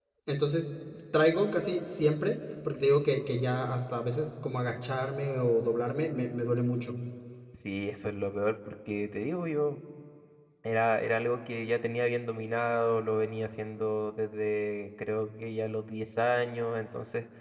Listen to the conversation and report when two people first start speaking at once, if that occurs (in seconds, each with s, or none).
none